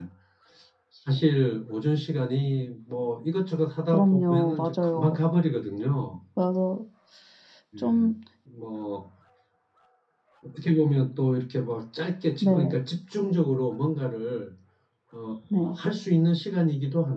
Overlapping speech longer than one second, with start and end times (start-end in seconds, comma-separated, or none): 3.9-5.2